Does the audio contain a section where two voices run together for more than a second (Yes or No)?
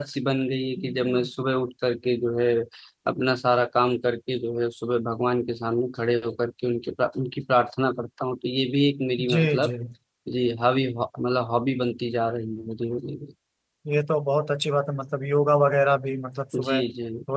No